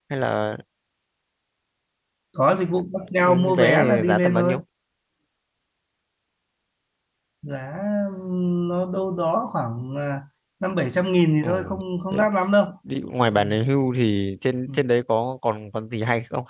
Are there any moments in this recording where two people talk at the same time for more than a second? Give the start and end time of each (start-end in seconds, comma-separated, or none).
3.1-4.6